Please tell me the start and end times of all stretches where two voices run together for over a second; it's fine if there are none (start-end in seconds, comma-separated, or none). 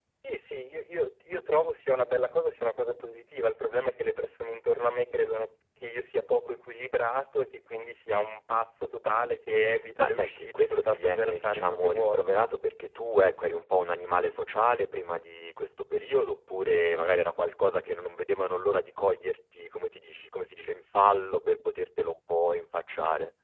10.0-12.2